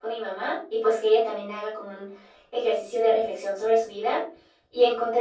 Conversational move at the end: listening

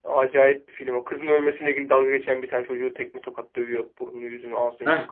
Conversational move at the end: taking over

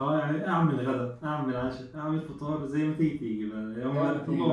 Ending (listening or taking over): taking over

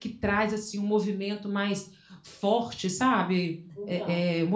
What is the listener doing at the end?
listening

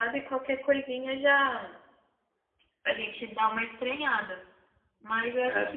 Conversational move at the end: listening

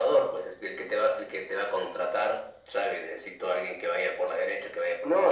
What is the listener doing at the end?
taking over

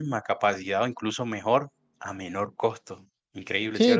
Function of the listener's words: taking over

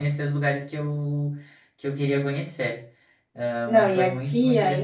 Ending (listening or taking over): taking over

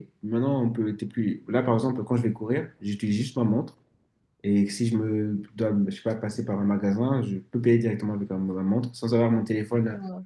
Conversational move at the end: listening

